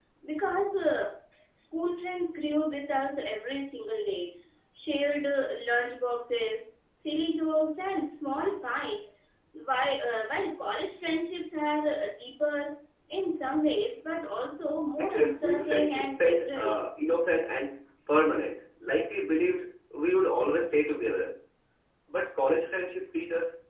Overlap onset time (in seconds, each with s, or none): 15.0 s